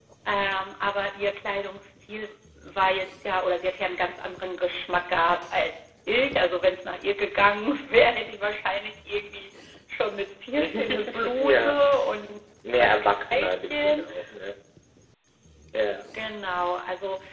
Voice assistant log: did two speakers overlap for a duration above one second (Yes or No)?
Yes